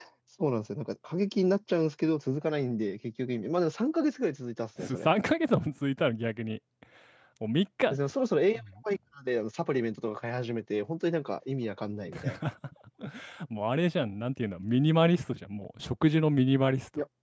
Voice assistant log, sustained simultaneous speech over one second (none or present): none